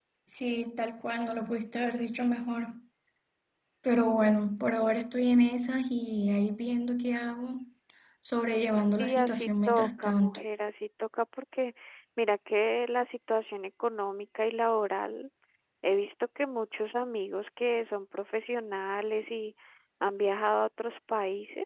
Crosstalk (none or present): present